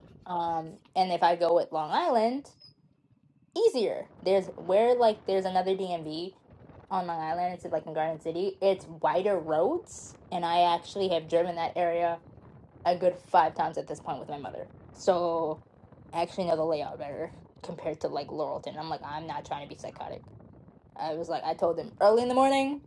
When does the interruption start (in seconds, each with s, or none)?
none